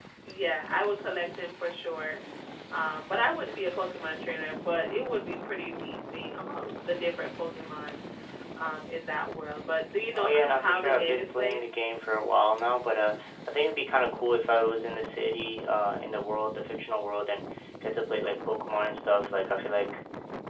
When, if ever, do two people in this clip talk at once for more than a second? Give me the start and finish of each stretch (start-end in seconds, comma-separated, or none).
10.1-11.6